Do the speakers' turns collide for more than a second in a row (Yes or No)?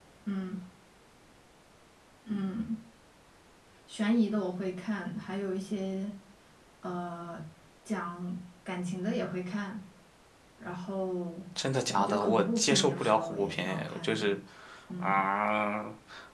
Yes